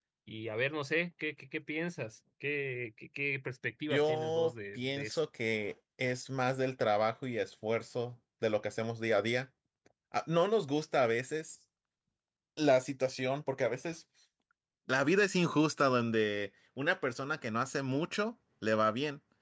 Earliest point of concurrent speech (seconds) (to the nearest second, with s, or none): 4 s